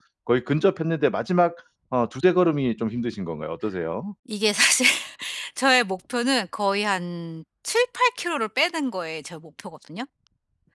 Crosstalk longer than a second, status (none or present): none